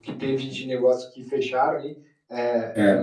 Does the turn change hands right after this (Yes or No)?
No